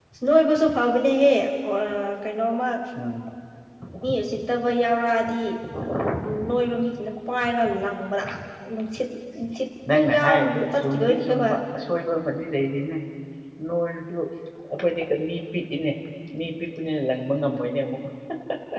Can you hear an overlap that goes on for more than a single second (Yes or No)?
Yes